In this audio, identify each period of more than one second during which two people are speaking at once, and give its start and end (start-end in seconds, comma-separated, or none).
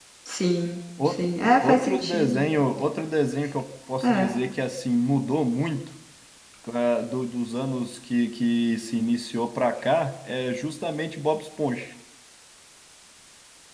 1.0-2.4